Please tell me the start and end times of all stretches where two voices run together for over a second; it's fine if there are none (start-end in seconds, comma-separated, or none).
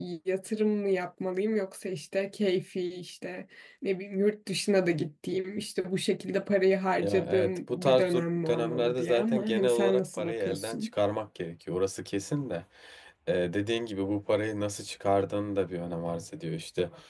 7.0-10.9